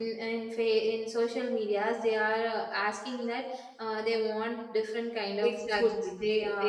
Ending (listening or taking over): taking over